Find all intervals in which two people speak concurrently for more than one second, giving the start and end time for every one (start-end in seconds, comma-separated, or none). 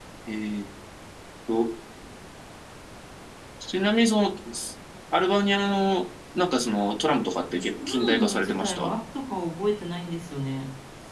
7.5-8.9